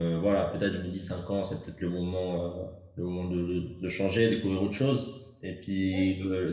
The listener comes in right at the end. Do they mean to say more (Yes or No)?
No